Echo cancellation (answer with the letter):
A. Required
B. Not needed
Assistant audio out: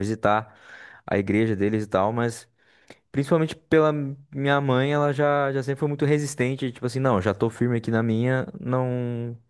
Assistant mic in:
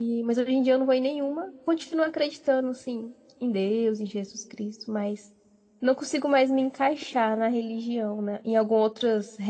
B